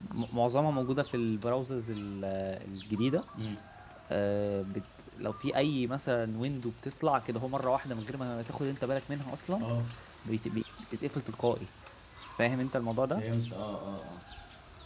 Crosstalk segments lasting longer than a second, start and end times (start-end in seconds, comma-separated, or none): none